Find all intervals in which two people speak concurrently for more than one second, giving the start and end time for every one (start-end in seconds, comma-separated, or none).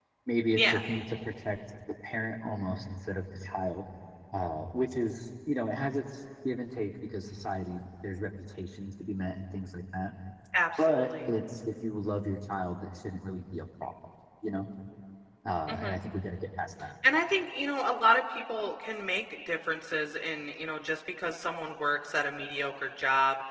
none